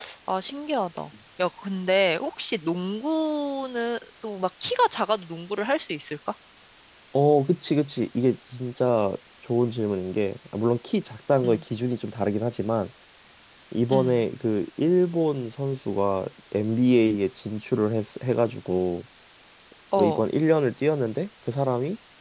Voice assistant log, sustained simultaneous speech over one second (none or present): none